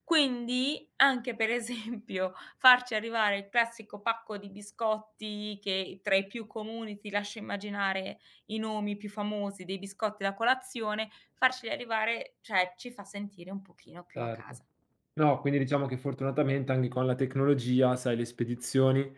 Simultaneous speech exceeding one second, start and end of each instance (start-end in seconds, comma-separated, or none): none